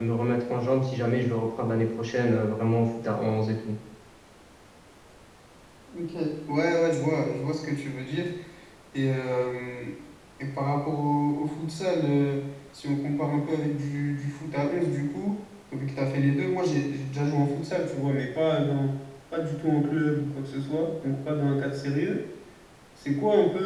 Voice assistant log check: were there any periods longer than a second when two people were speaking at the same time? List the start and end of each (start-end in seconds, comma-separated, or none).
none